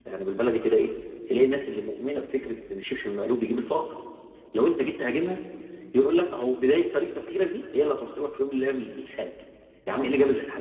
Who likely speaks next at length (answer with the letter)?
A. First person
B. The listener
A